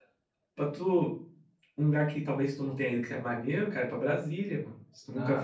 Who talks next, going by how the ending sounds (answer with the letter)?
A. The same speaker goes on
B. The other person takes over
B